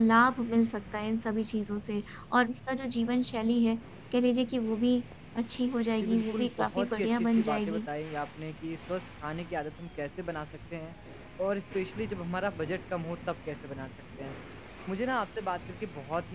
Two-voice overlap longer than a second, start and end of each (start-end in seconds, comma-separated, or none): 6.0-7.9